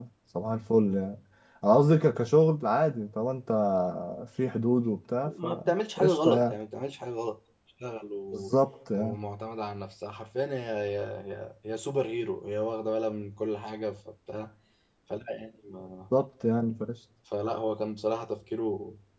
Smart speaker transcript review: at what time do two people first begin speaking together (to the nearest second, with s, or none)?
5 s